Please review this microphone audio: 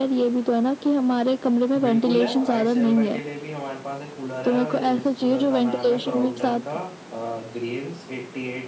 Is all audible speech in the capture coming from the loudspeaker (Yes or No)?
No